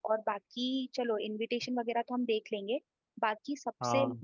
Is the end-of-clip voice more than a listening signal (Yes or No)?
No